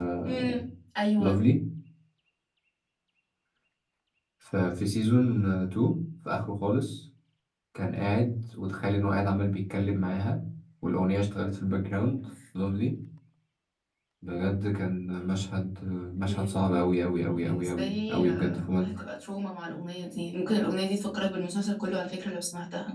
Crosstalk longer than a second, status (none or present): present